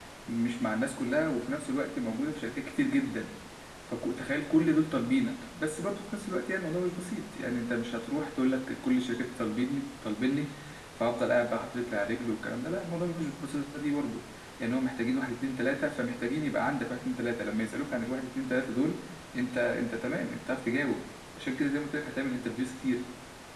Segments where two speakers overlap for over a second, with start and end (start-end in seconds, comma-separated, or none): none